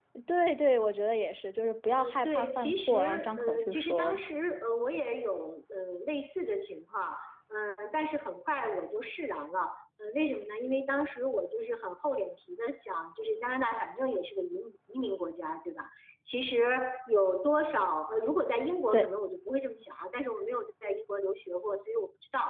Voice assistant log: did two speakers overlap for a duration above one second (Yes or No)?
Yes